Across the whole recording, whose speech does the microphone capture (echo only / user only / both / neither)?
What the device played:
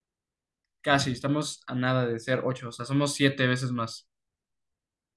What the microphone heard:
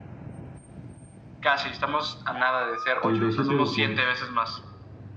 both